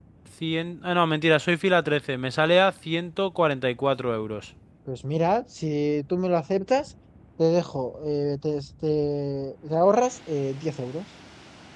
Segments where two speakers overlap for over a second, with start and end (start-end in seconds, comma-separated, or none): none